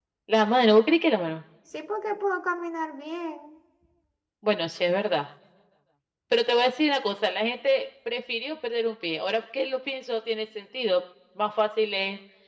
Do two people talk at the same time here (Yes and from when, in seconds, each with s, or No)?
No